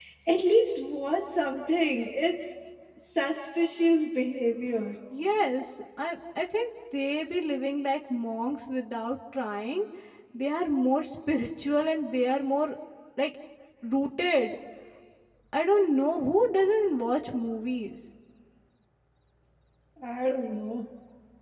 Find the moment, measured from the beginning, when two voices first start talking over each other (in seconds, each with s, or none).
none